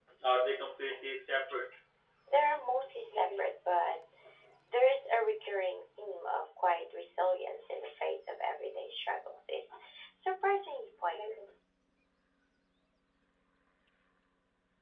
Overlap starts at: none

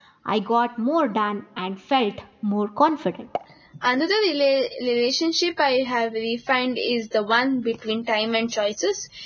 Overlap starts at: none

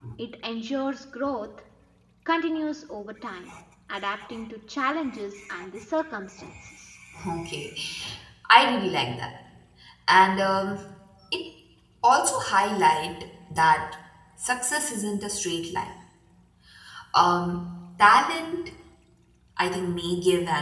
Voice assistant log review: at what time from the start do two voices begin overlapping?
none

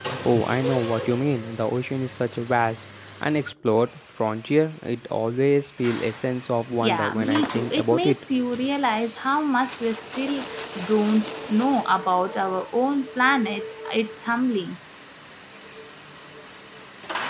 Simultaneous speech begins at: 6.8 s

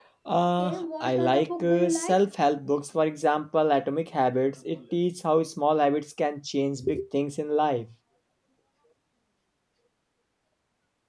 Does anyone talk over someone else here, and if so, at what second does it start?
0.6 s

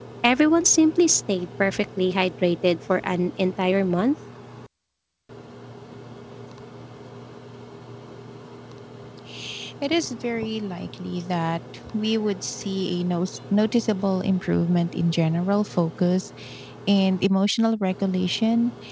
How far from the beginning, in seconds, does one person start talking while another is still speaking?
none

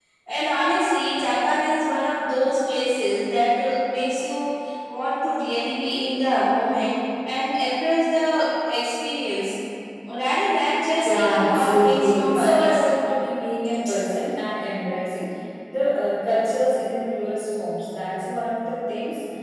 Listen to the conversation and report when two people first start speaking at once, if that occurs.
11.1 s

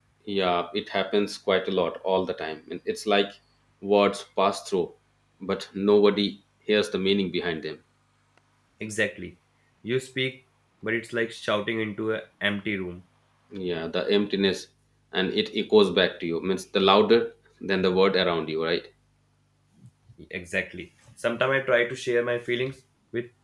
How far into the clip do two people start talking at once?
none

